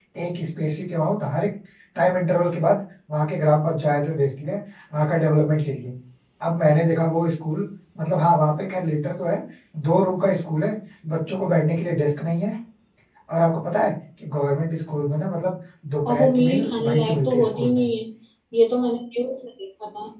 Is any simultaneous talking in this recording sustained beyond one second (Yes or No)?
Yes